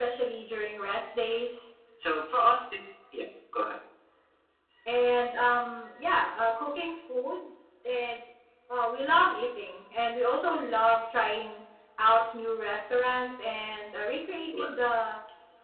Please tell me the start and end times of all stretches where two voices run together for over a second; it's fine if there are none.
none

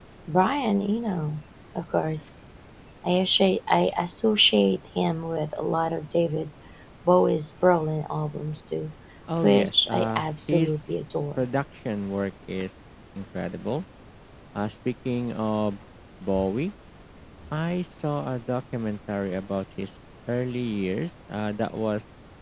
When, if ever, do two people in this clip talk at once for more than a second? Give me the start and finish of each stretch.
9.4-10.7

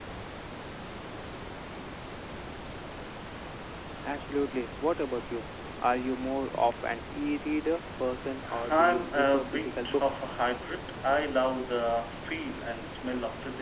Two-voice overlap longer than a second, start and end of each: 8.7-10.1

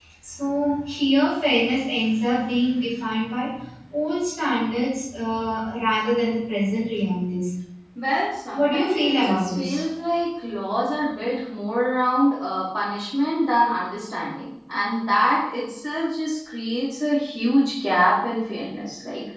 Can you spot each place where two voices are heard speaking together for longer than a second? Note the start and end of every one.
8.5-9.8

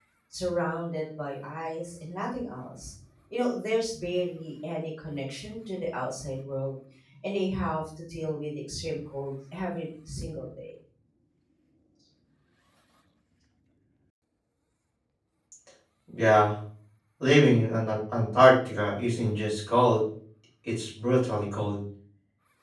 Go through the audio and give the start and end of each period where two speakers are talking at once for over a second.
none

